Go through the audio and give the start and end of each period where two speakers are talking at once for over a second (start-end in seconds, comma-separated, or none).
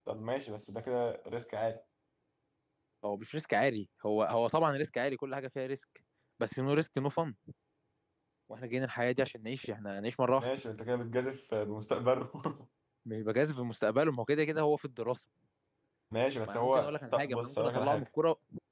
16.5-18.1